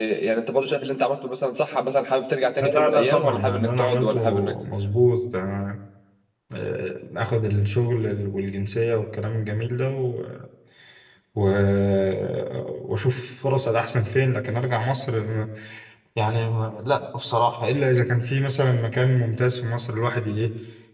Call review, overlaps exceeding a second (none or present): present